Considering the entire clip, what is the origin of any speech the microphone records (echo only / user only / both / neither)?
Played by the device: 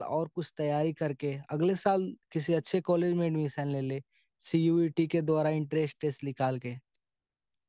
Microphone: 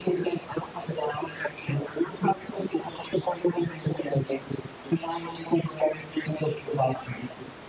echo only